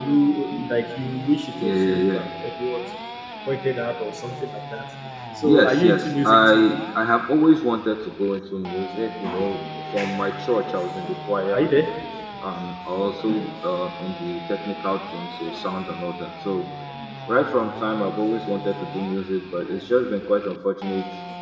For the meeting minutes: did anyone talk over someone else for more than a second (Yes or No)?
Yes